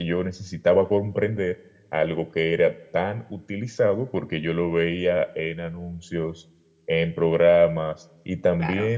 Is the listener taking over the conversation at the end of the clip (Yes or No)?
No